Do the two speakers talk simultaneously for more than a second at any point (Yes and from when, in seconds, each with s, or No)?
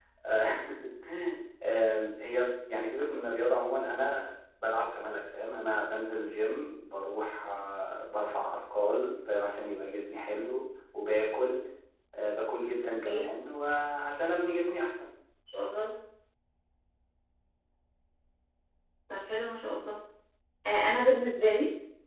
No